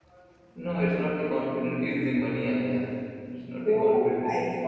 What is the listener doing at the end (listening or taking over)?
taking over